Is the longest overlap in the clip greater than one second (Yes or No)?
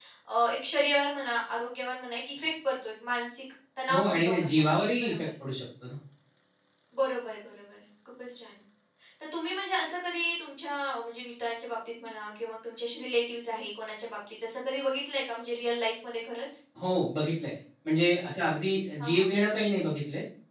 Yes